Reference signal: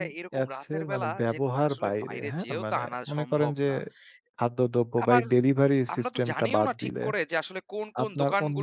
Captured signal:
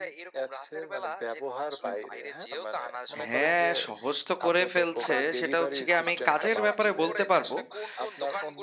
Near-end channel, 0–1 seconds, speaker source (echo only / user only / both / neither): echo only